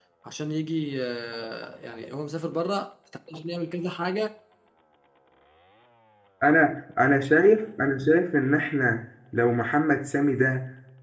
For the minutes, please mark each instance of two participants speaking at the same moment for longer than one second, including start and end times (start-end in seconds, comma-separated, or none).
none